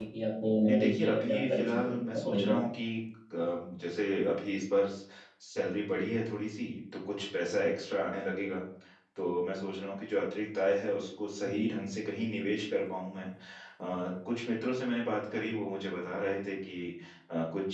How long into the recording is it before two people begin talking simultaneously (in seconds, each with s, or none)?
0.7 s